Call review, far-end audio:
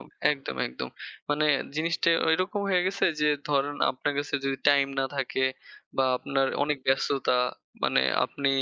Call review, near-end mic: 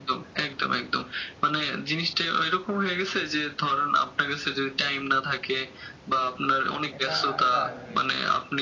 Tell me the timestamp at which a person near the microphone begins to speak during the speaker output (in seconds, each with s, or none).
7.0 s